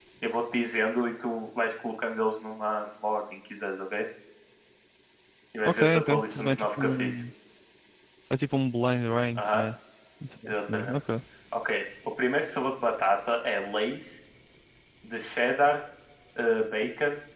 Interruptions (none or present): present